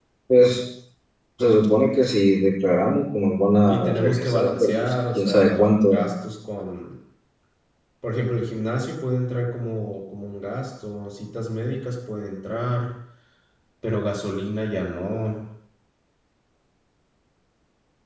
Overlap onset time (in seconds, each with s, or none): 3.7 s